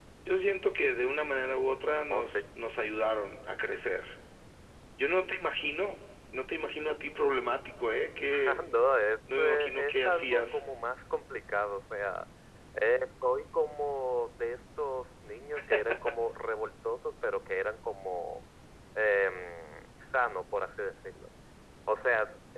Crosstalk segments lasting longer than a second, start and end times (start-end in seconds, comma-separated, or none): 9.4-10.6